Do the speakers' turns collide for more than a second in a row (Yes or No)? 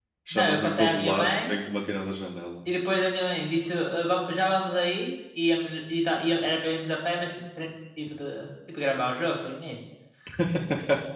Yes